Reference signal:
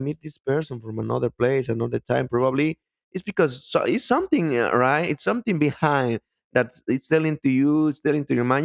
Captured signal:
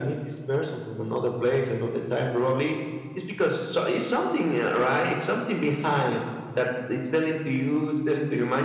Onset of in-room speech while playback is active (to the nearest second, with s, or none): none